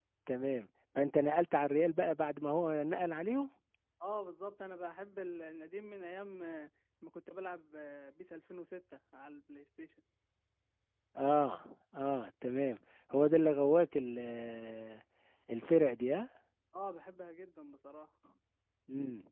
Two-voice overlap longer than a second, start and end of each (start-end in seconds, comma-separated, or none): none